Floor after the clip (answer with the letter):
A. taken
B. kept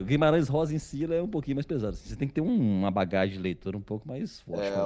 A